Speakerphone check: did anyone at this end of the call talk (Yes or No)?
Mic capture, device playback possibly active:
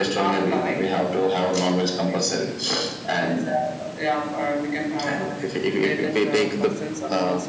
No